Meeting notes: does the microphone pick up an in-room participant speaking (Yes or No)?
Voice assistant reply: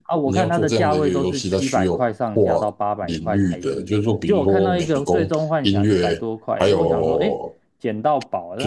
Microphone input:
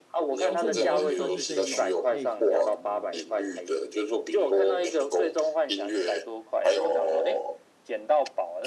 Yes